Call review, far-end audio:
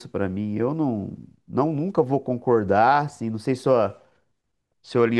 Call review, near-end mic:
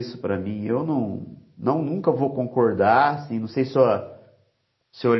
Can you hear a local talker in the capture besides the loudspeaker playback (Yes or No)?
No